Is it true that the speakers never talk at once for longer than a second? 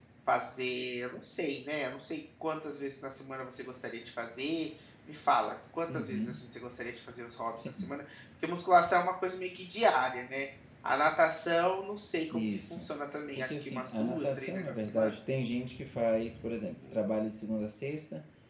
No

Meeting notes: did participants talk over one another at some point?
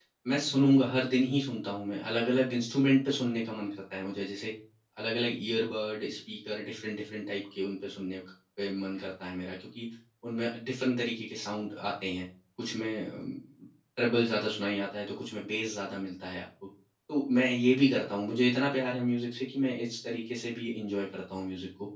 No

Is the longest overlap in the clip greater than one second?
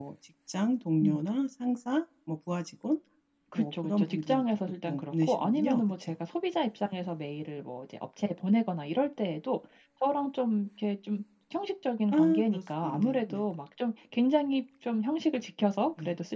Yes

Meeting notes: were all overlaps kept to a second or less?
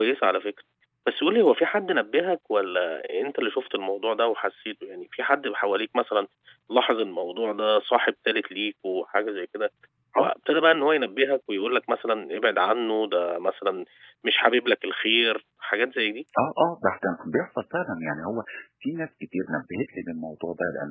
Yes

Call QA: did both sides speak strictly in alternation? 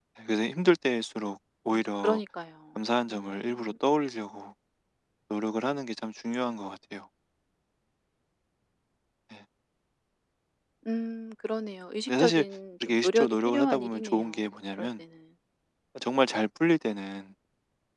No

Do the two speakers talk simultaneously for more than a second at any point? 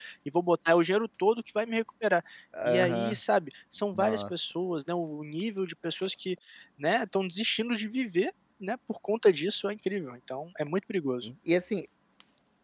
No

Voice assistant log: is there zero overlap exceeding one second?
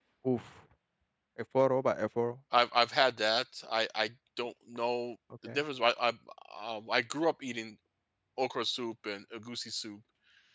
Yes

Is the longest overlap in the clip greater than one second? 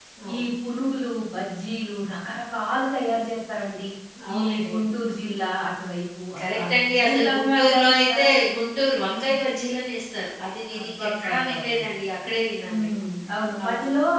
Yes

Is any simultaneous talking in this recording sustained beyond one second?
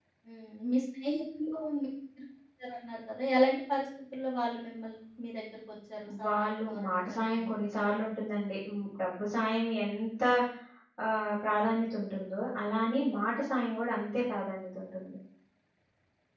Yes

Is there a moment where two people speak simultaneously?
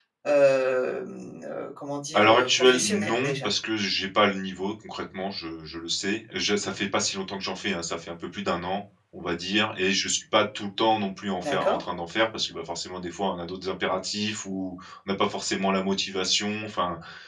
Yes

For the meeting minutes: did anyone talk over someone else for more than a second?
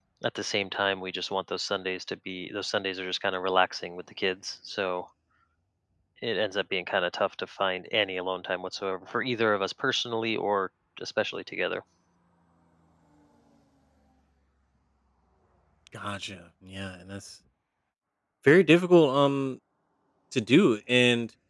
No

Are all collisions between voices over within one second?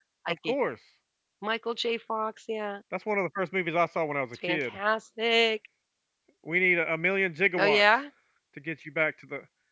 Yes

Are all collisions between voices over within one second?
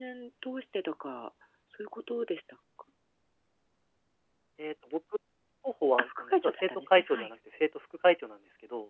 No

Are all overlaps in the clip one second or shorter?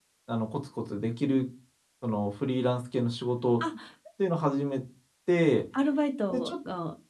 Yes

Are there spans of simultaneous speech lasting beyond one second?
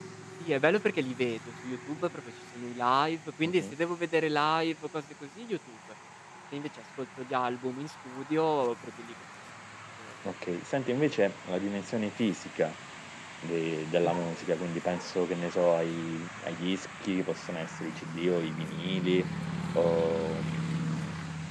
No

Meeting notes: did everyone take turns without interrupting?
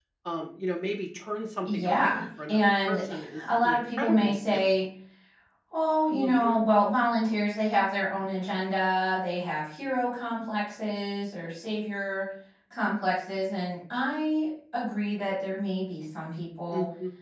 No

